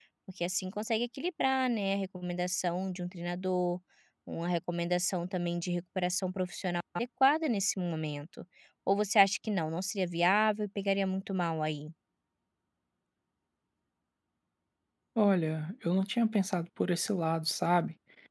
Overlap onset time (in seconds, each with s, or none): none